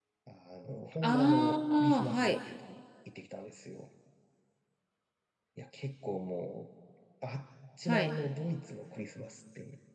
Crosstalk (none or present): present